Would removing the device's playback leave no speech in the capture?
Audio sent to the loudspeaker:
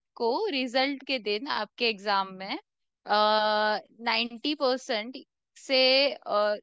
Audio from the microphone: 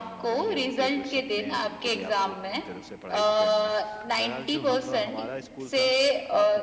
No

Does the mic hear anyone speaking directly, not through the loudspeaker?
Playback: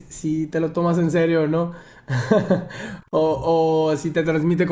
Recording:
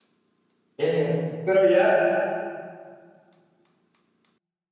Yes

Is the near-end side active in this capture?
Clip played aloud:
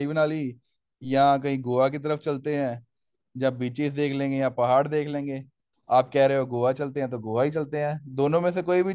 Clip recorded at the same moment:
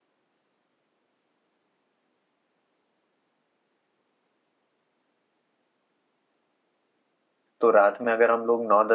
Yes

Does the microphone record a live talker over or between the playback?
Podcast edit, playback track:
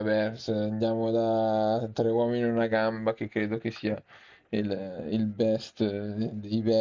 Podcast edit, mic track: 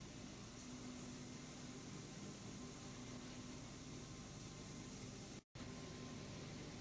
No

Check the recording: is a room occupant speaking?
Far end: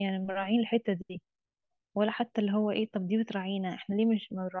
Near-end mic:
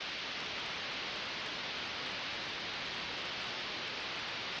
No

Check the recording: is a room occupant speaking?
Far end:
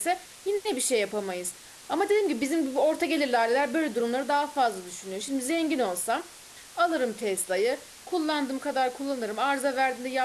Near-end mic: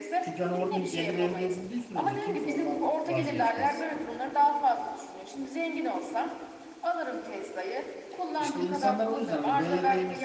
Yes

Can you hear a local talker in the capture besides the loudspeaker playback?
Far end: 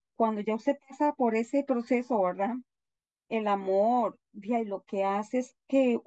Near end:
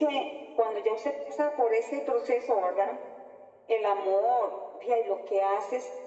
No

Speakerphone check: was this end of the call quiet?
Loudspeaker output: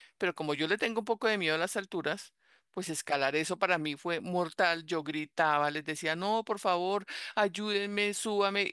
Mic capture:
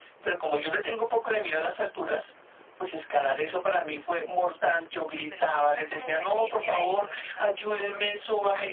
No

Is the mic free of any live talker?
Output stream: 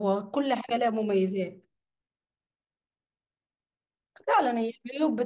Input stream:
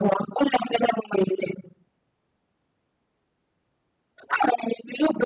Yes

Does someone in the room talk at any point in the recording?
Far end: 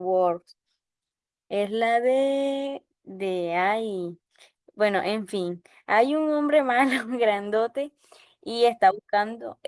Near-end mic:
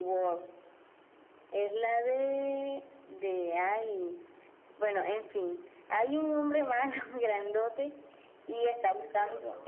Yes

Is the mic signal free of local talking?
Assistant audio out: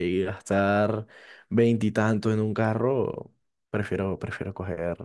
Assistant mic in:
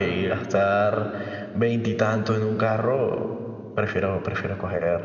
Yes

